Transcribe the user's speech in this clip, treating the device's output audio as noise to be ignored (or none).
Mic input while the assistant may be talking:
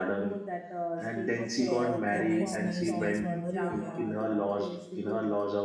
okay okay nice nice nice memory you have